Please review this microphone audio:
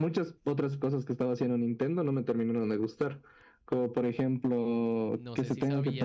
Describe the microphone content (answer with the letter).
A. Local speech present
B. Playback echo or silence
A